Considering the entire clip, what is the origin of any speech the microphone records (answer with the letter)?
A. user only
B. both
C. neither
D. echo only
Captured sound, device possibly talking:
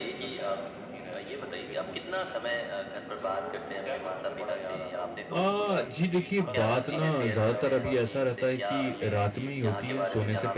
B